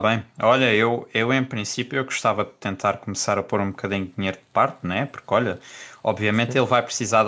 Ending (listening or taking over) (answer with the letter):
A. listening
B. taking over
A